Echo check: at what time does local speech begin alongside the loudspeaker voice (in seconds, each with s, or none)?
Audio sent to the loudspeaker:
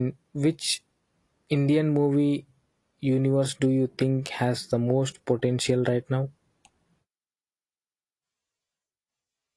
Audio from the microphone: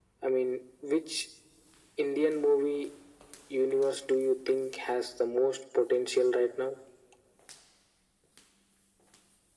none